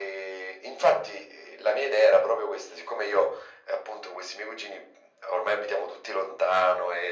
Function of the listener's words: listening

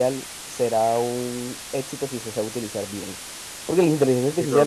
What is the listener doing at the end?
listening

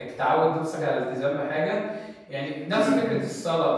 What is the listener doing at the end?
listening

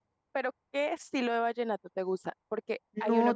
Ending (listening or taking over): listening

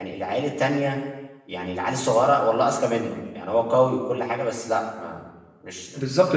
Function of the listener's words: taking over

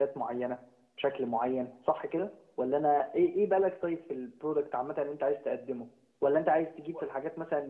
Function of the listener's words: listening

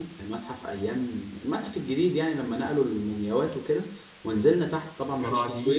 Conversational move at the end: listening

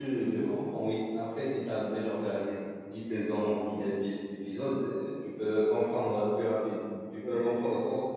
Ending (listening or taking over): taking over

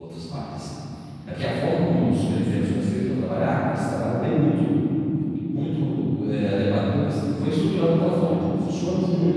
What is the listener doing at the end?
listening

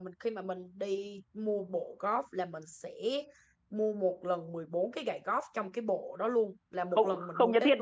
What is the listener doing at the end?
taking over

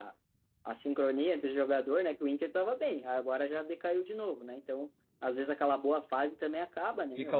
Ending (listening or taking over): taking over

